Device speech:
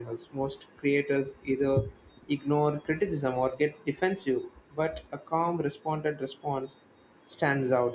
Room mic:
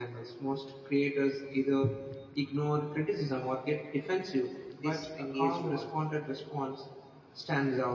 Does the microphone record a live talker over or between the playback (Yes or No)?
Yes